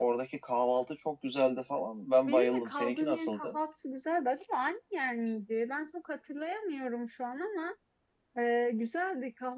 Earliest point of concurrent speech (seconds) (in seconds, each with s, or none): 2.2 s